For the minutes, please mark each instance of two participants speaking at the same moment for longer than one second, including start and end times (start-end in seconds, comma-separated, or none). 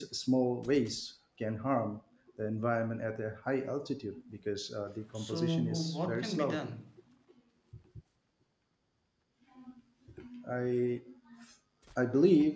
5.2-6.7